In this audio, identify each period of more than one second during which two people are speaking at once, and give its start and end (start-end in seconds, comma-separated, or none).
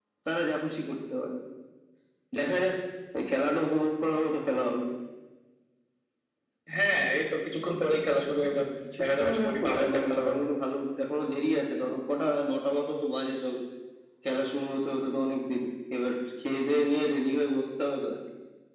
9.0-10.3